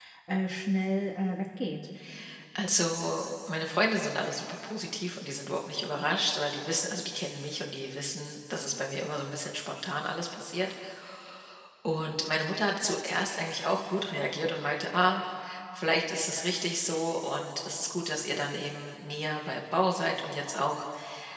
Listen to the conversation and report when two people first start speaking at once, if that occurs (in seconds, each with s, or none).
none